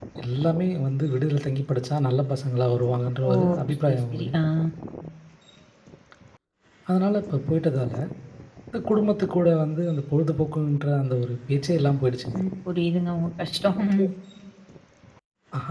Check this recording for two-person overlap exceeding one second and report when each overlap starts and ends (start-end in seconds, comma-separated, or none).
none